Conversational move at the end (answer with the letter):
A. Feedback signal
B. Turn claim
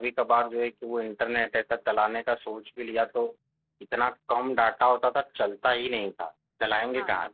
A